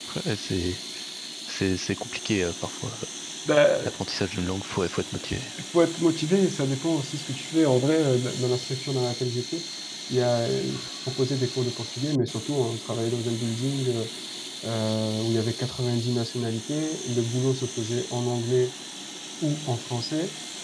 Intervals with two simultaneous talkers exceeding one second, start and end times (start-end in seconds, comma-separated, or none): none